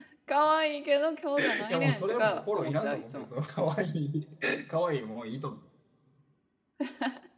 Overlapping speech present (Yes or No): Yes